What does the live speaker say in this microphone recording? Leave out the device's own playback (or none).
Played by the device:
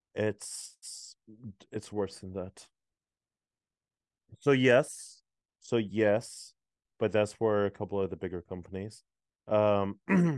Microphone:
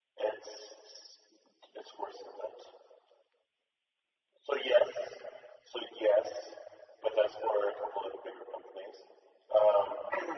none